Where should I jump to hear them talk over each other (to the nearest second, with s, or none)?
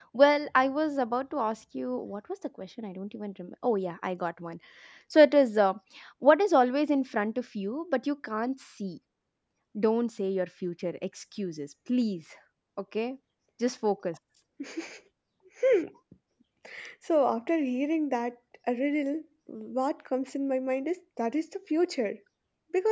none